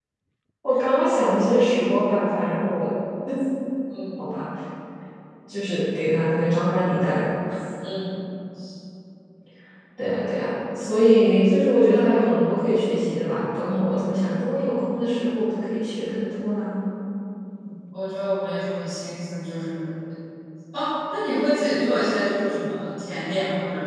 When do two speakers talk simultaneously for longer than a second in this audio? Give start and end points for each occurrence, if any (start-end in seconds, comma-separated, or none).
none